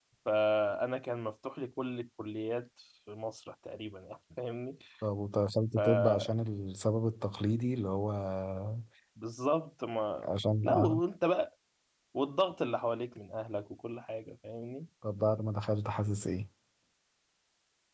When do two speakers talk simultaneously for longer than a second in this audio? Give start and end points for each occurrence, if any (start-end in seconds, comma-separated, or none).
none